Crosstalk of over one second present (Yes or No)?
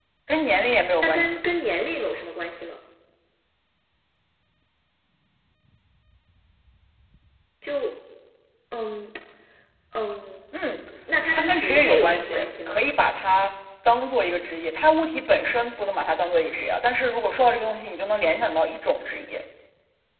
Yes